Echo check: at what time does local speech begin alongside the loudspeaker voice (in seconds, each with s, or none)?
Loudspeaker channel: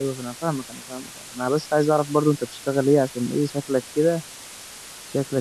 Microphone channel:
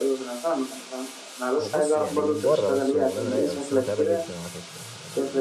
1.6 s